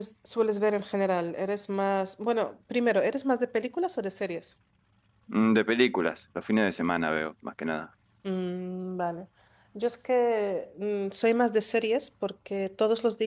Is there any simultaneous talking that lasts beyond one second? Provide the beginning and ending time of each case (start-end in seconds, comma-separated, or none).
none